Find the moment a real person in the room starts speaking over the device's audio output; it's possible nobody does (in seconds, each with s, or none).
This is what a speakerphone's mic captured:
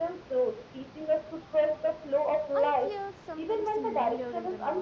2.5 s